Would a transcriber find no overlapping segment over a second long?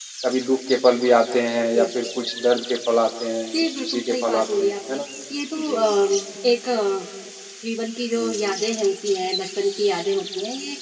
No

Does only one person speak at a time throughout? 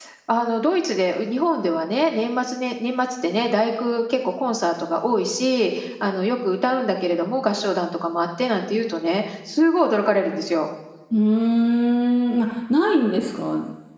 Yes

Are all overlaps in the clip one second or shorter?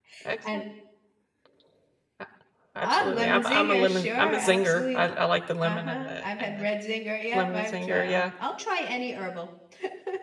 No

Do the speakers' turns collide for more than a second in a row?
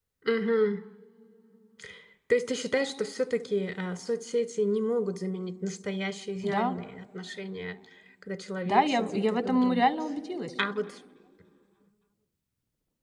Yes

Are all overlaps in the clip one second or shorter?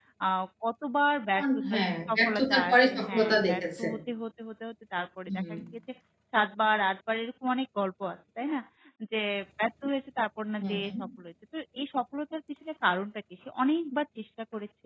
No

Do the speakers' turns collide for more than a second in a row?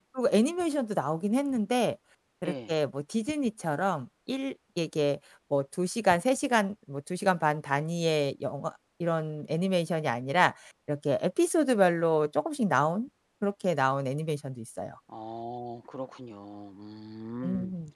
No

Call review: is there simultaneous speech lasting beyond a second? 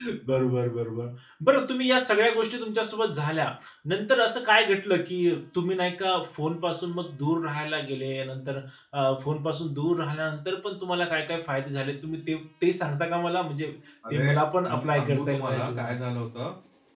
Yes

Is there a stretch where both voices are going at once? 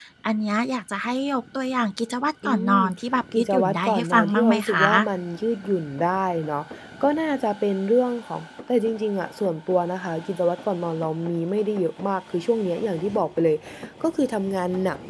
Yes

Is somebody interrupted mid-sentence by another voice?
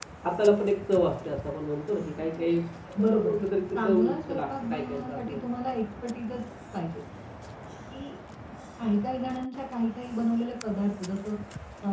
Yes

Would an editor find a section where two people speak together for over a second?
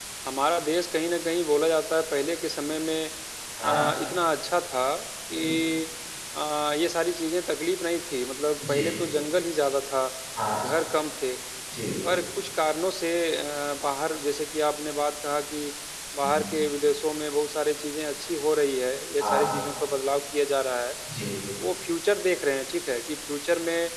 No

